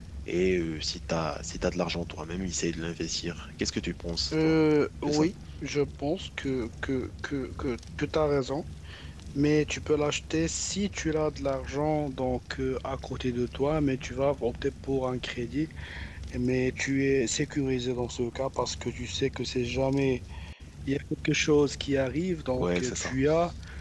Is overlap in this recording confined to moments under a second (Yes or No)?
Yes